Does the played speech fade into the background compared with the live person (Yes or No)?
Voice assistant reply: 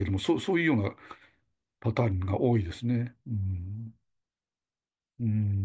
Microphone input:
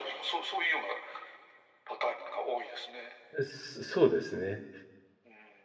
Yes